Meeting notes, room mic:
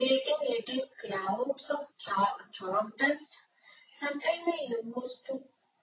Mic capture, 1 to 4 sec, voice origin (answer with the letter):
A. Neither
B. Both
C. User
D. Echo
D